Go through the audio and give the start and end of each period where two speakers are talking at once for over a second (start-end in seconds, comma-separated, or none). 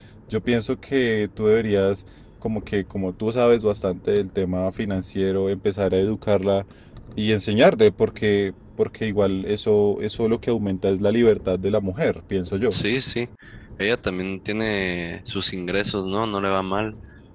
none